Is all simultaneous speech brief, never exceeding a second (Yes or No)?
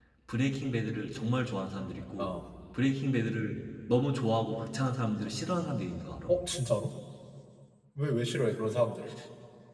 Yes